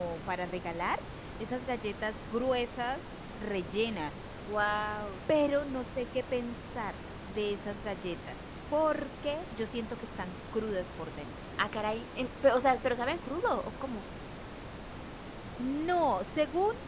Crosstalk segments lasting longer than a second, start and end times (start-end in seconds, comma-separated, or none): none